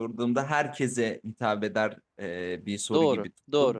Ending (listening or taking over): listening